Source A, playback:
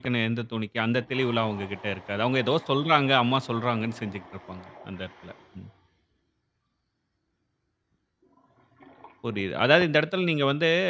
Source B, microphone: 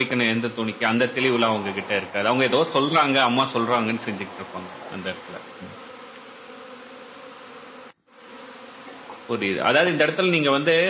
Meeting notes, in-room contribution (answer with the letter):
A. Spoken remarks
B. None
B